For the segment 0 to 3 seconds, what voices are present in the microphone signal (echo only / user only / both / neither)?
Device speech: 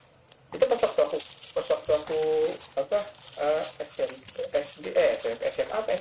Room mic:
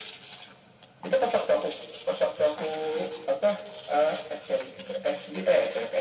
echo only